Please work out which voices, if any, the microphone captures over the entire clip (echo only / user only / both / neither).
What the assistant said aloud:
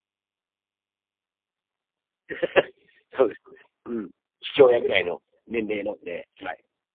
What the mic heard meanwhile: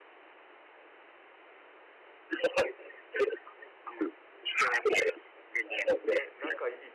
both